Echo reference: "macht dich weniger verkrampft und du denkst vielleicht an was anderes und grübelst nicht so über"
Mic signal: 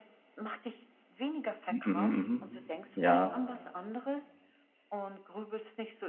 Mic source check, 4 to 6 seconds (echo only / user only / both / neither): echo only